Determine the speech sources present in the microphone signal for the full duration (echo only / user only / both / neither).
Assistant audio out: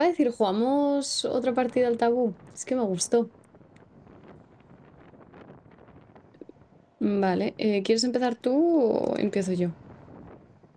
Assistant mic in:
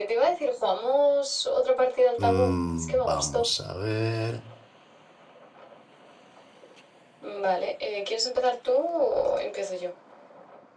both